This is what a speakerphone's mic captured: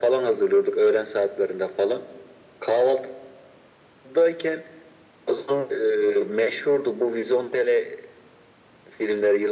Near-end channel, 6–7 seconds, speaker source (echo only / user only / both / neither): echo only